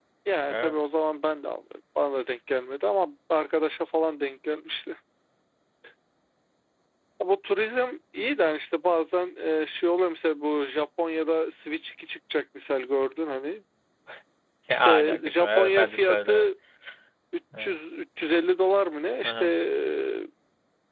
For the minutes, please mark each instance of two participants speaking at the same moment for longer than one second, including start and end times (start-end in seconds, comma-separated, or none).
14.7-16.5